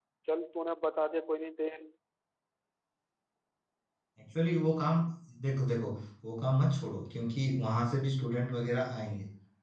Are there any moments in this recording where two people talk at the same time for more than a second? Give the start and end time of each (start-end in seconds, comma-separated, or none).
none